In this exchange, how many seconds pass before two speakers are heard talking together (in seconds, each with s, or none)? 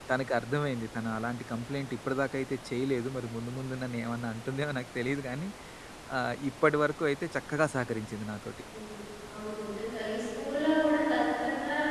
none